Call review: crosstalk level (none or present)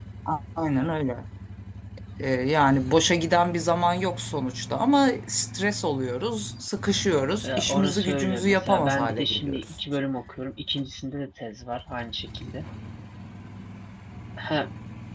present